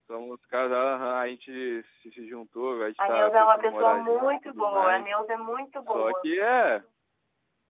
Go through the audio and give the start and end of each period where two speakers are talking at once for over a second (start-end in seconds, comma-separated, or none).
3.1-5.2